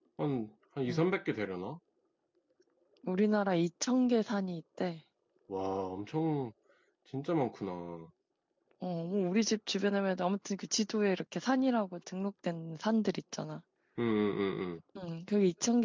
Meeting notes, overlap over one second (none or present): none